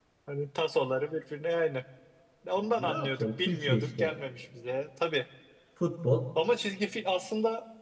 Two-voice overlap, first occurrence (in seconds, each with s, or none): 2.6 s